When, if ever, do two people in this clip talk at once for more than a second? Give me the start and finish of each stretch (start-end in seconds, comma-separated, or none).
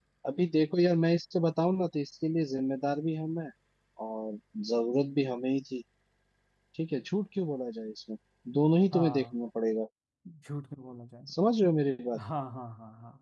none